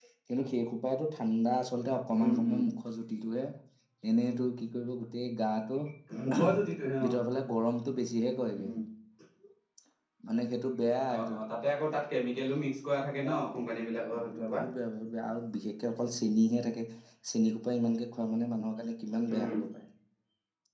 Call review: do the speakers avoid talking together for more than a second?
Yes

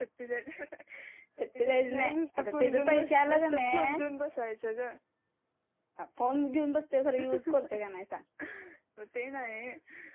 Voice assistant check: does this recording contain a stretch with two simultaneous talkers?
Yes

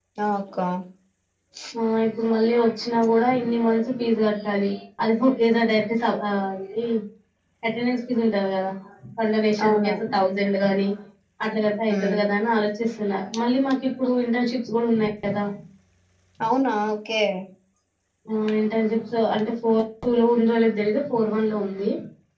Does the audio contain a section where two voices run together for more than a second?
No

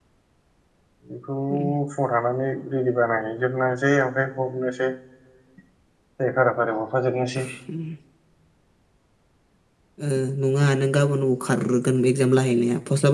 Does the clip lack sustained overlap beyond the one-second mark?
Yes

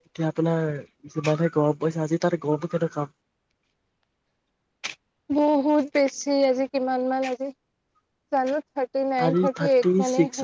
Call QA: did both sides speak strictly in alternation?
No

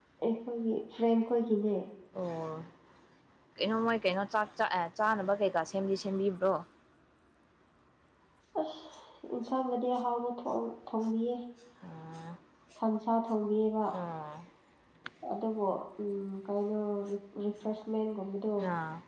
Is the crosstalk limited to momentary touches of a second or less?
Yes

